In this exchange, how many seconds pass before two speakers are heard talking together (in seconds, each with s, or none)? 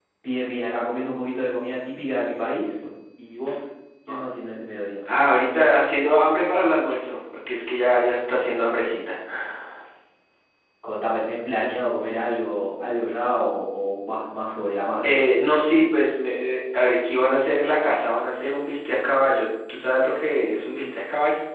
none